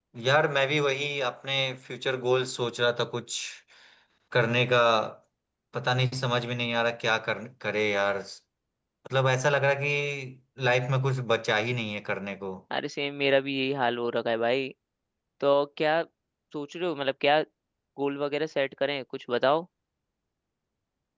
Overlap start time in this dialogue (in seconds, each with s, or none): none